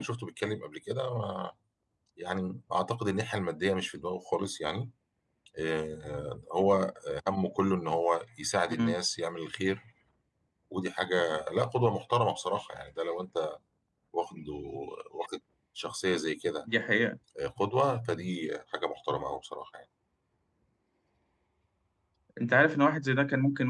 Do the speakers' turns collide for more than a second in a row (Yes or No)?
No